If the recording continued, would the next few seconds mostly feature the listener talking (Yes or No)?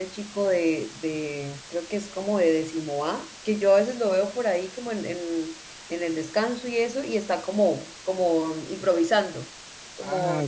Yes